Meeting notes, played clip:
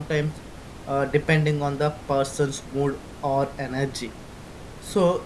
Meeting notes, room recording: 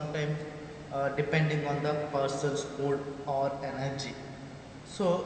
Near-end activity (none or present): none